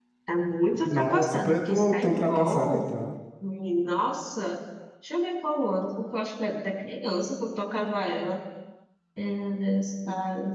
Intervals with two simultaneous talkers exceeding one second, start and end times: 0.8-2.9

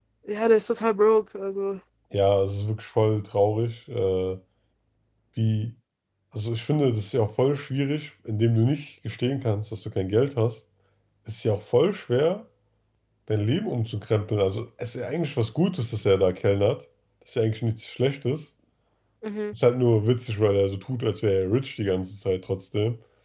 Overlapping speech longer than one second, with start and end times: none

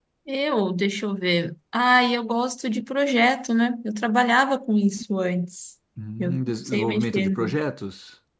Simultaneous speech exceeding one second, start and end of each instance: 6.2-7.6

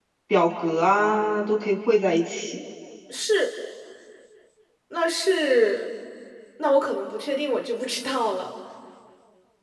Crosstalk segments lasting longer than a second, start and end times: none

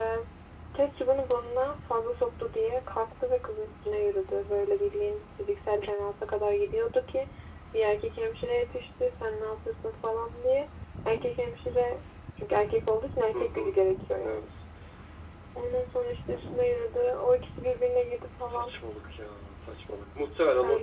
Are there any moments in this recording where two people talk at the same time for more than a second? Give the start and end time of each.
none

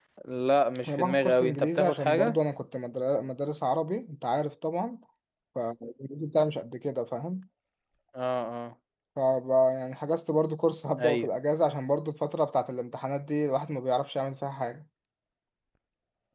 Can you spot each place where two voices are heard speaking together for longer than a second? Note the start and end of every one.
0.9-2.4

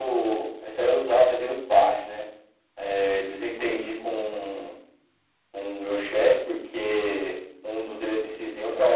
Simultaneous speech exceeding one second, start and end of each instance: none

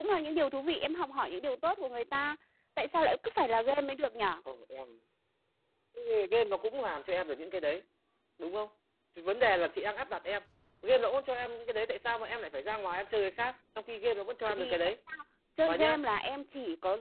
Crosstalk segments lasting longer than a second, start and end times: none

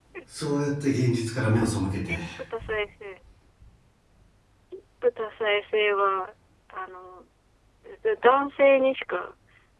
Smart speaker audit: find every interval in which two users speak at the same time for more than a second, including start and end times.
none

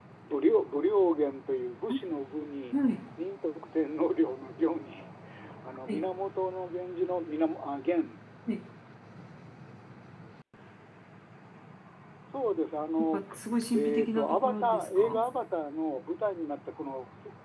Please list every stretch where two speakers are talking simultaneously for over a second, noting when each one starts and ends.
13.7-15.2

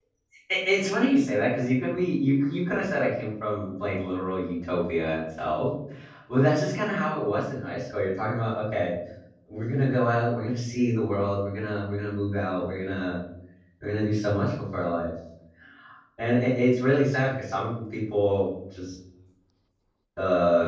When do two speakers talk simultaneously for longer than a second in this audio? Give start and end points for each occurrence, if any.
none

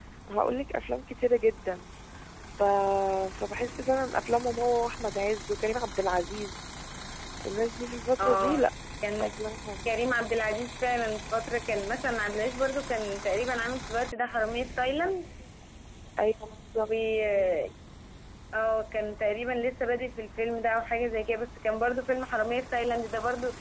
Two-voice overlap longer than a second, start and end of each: none

